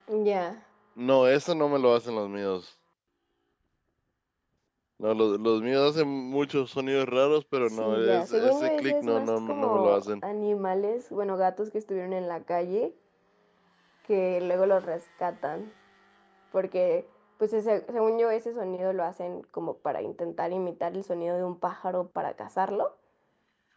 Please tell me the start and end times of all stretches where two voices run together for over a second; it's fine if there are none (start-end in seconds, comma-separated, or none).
7.8-10.1